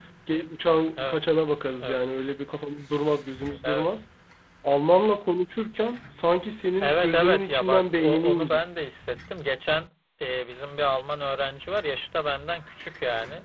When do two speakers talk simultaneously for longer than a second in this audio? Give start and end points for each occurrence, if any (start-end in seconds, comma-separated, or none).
6.8-8.6